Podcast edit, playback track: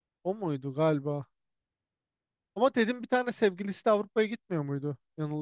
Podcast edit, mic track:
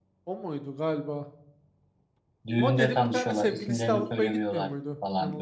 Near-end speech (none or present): present